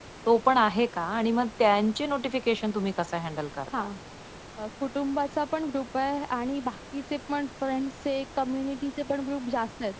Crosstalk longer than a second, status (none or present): none